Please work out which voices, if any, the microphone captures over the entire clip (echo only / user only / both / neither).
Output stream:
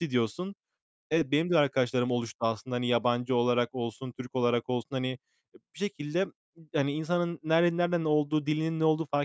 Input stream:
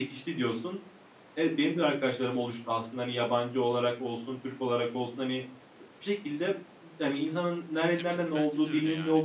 both